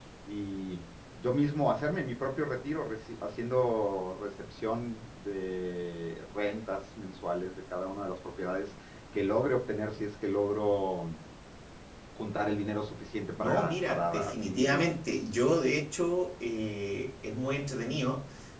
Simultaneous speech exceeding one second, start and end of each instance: 13.4-14.8

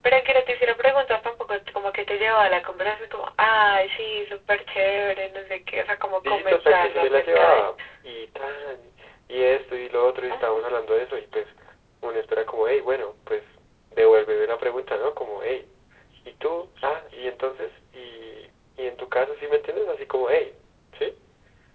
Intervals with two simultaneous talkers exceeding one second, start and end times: 6.3-7.6

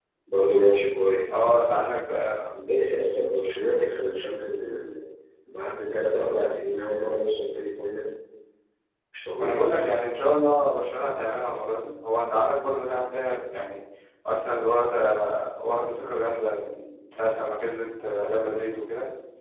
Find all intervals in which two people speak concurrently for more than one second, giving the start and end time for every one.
none

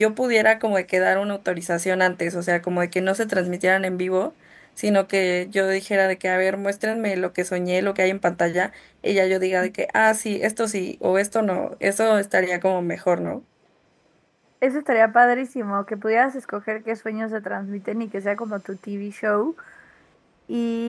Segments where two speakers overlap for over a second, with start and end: none

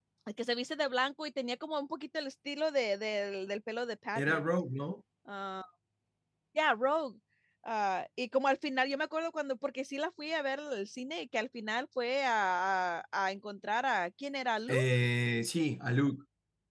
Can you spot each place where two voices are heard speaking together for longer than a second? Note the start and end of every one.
none

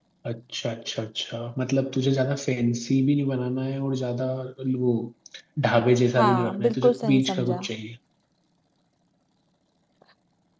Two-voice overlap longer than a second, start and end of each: 6.2-7.7

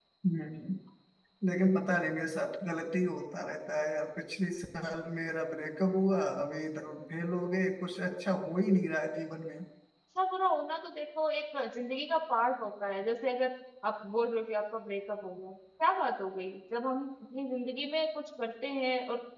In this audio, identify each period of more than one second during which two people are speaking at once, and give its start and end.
none

